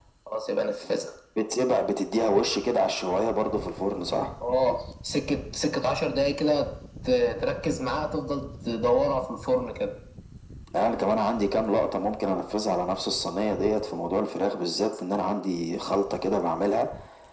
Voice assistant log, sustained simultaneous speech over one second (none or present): none